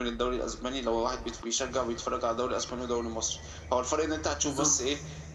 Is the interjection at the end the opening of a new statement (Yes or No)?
No